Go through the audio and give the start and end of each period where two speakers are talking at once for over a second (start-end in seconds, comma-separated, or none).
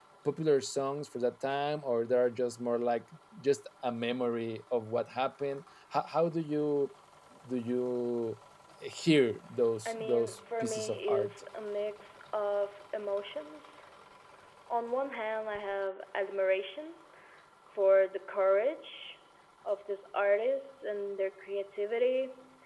9.8-11.3